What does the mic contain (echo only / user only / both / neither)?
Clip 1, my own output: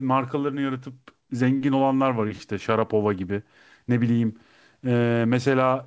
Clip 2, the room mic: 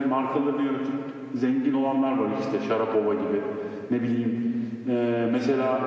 echo only